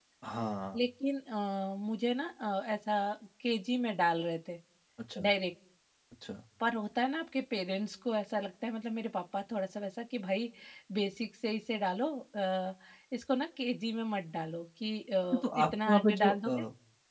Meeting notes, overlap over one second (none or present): present